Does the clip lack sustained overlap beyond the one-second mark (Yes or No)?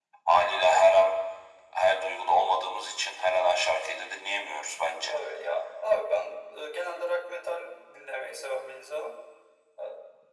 Yes